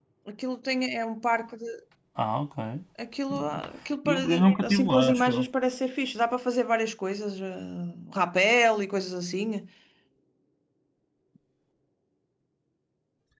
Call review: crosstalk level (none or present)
present